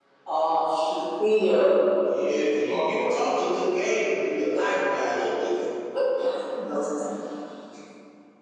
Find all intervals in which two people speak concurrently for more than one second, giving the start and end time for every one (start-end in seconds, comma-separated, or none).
none